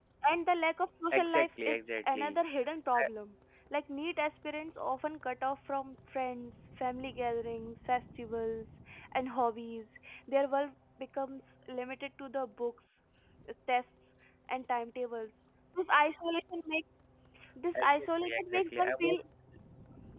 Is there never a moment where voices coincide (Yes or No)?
No